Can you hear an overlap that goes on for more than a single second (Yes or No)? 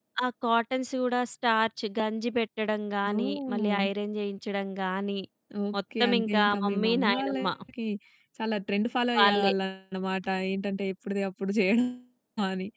Yes